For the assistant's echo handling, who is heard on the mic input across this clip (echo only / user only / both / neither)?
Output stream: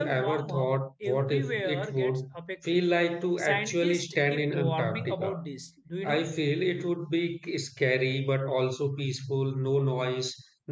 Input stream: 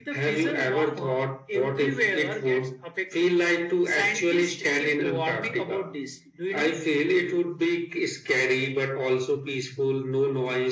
echo only